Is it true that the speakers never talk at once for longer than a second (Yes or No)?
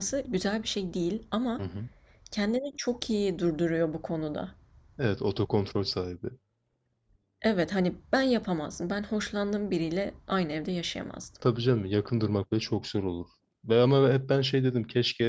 Yes